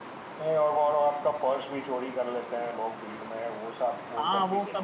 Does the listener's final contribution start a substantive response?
Yes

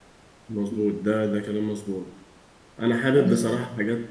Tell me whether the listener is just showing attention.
Yes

